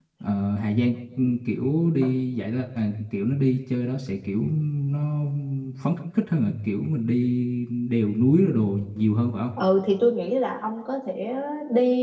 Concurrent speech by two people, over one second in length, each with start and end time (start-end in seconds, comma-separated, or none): none